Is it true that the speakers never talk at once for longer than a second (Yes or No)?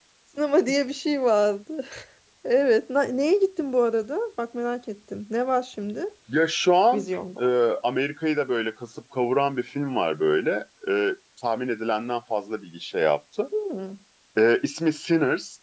Yes